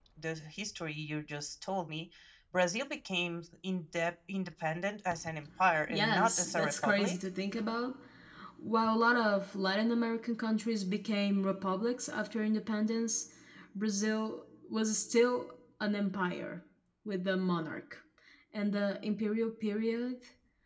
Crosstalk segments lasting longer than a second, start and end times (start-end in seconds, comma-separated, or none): 5.9-7.2